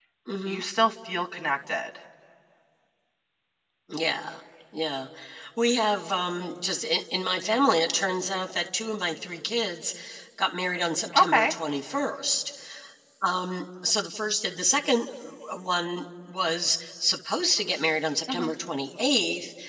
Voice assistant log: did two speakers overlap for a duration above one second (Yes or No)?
No